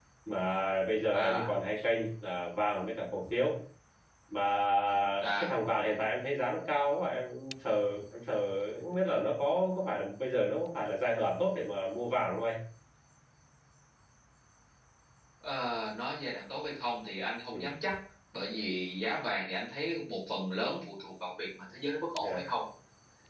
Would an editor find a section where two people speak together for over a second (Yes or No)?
No